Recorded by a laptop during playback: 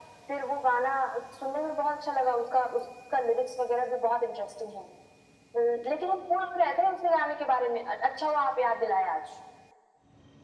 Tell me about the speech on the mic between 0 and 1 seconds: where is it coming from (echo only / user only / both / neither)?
echo only